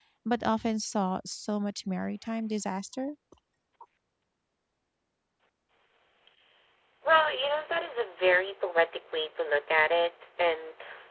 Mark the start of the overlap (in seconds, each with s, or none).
none